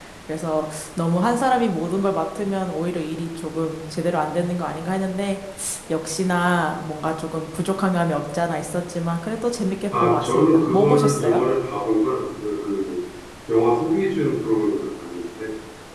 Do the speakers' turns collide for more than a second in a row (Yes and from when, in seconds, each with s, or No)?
Yes, from 9.9 s